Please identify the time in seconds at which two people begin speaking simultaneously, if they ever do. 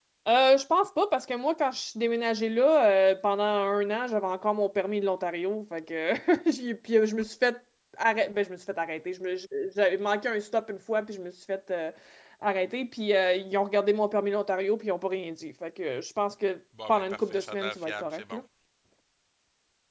16.8 s

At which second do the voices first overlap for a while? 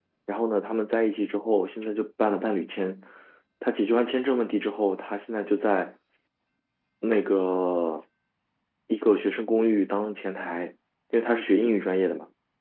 none

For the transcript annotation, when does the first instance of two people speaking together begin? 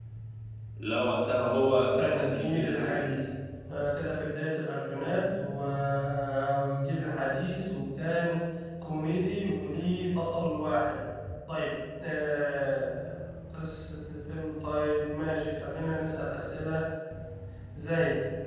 1.9 s

